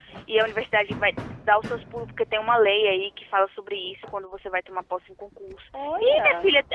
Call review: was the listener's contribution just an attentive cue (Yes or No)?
Yes